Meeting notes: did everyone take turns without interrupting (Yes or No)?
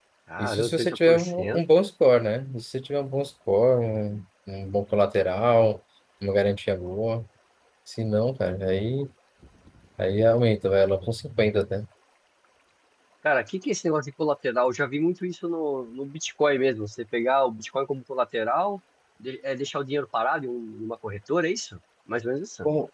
No